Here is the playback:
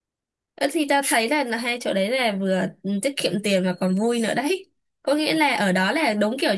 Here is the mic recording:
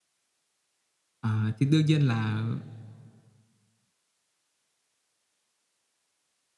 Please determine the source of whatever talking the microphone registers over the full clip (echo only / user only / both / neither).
user only